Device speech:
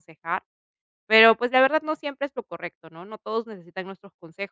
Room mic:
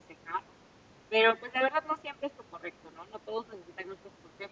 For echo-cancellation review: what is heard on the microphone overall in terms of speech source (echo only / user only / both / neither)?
echo only